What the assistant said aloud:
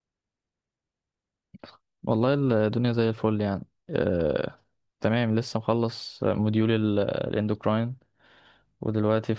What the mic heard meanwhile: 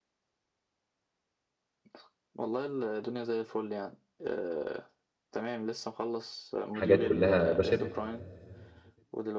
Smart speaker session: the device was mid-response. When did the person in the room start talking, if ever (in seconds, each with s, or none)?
6.7 s